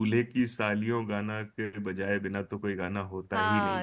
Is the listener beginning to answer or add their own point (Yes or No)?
Yes